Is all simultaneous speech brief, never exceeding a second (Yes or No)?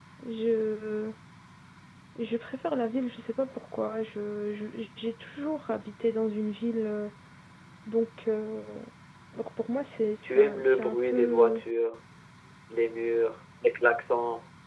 No